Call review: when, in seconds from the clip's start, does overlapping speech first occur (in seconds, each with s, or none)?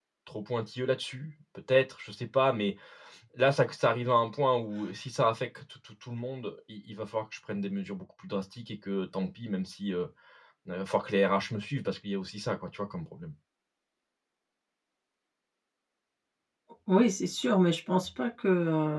none